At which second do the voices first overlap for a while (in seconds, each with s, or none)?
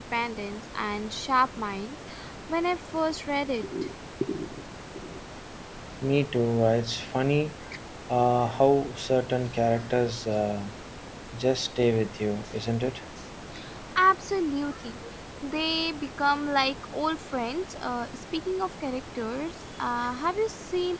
none